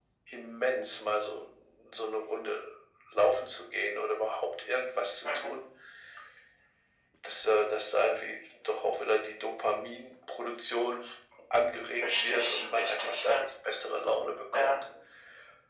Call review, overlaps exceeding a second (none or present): present